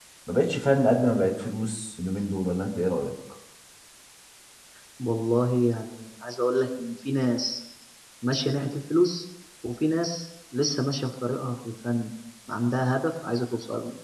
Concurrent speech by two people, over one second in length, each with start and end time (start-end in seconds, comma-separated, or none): none